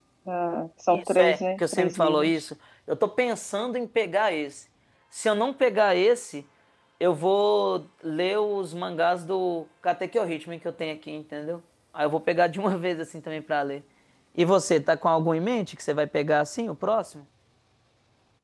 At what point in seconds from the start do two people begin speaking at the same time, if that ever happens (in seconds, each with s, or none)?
0.9 s